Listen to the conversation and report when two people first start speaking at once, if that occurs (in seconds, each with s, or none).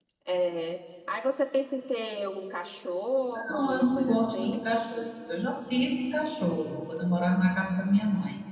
3.3 s